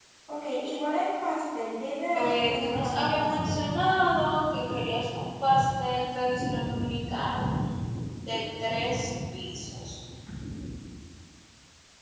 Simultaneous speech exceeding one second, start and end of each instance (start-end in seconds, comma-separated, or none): 2.1-3.5